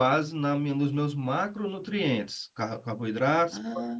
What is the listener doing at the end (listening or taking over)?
listening